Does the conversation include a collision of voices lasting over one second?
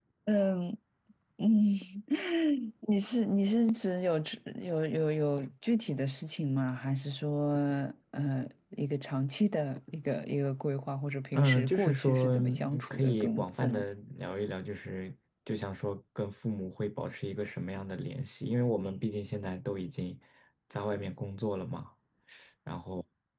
Yes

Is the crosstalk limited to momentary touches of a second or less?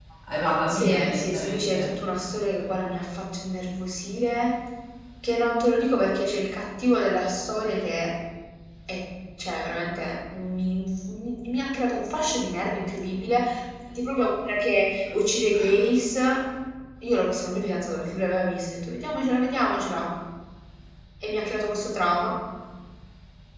No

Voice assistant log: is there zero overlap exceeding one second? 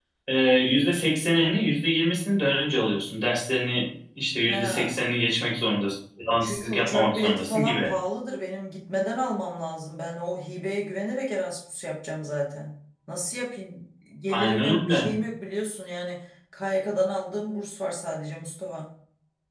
No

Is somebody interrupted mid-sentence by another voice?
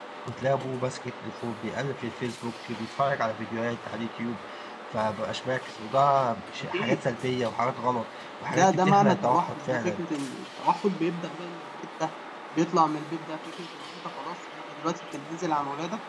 Yes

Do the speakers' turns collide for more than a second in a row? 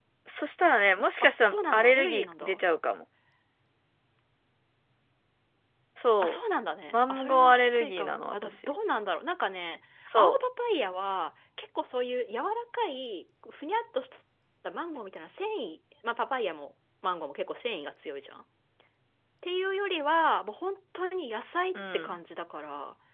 Yes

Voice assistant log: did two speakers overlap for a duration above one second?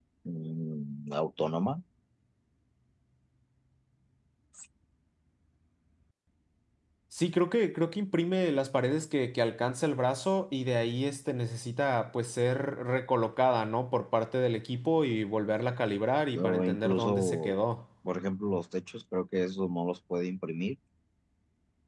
Yes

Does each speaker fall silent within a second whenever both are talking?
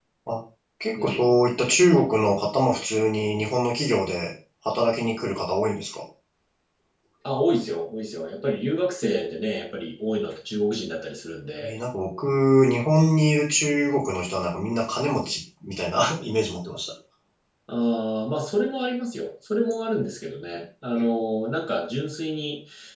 Yes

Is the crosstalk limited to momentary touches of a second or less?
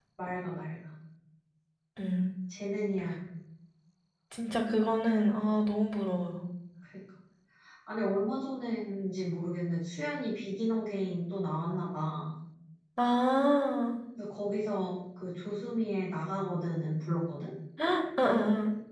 Yes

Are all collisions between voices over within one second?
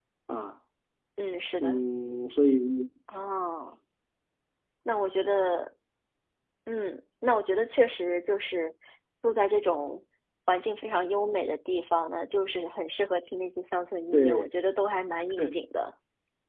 Yes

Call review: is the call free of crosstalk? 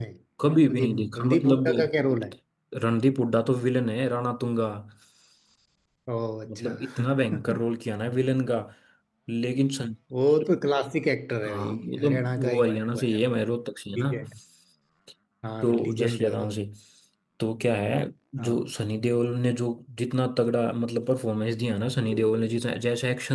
No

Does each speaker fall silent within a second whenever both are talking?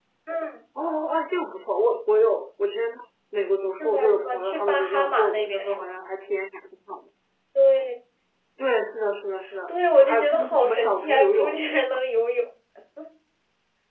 No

